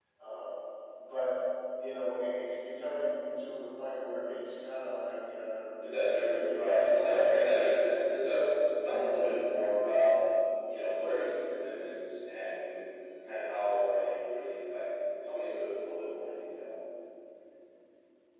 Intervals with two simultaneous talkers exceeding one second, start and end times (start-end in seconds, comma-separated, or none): 5.8-7.2